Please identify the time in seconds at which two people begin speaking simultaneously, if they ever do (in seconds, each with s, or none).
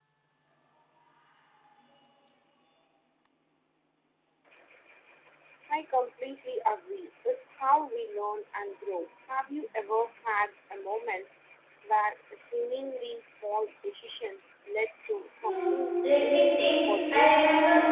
15.4 s